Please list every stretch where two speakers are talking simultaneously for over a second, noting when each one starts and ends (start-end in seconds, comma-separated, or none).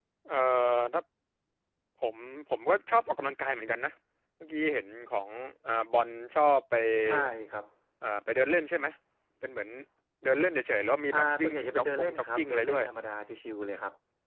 11.1-12.8